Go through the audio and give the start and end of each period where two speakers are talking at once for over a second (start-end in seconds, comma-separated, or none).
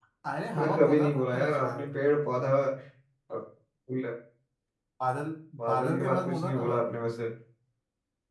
0.6-1.9, 5.7-7.0